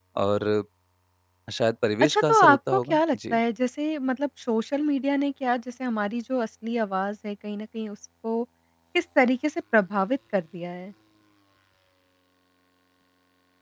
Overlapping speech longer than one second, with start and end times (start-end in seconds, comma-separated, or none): 2.0-3.4